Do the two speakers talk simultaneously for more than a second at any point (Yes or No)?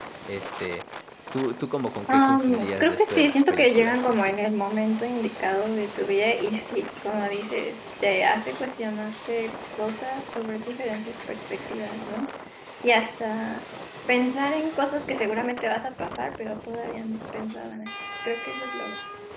Yes